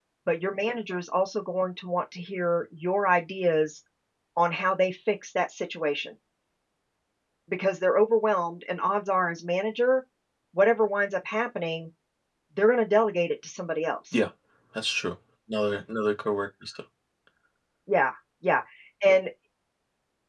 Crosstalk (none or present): none